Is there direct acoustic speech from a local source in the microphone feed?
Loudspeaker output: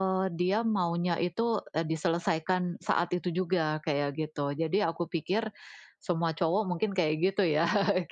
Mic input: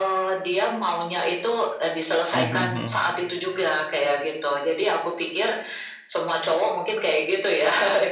Yes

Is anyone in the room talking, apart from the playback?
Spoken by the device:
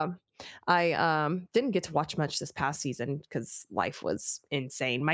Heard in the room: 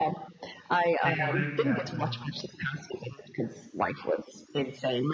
Yes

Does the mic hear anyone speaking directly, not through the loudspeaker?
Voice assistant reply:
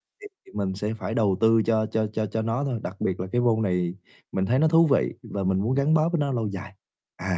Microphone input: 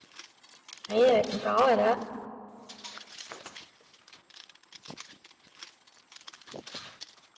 Yes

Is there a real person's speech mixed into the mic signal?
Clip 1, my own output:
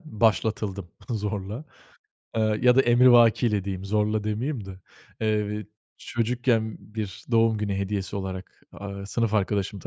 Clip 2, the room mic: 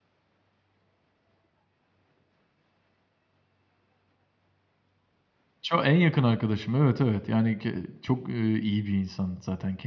Yes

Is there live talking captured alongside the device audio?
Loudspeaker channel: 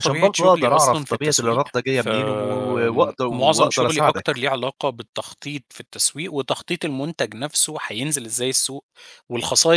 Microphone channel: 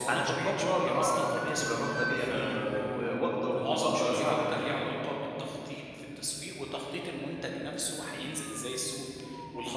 No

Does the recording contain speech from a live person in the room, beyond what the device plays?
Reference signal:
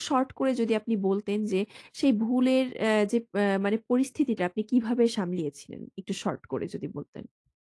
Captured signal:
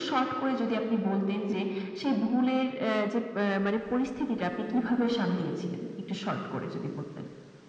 No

